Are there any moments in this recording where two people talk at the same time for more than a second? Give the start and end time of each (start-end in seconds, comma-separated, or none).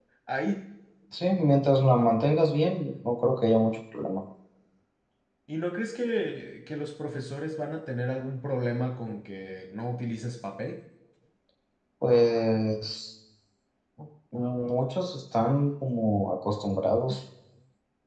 none